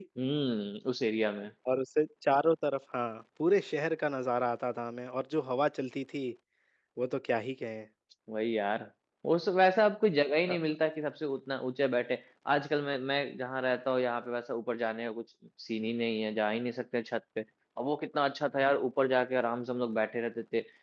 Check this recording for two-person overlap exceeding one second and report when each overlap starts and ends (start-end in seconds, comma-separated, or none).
none